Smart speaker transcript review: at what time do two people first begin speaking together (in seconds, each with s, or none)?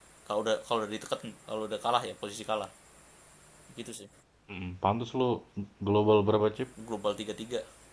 none